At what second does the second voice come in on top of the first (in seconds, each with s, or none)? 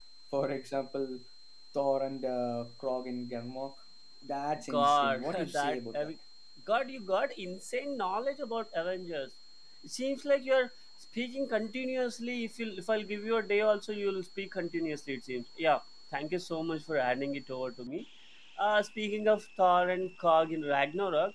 4.7 s